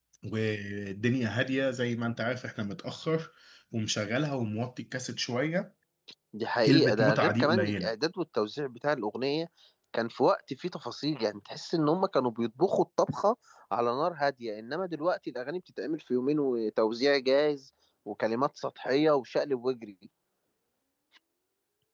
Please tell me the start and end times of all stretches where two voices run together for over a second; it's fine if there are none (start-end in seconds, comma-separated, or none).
6.6-7.9